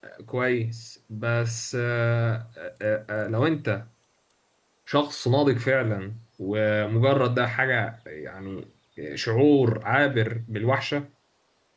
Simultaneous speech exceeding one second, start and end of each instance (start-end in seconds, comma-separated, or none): none